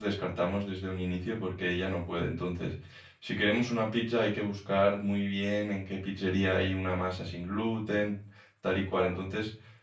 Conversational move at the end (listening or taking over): listening